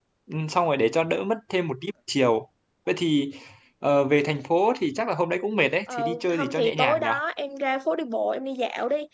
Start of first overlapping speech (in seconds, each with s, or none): 5.9 s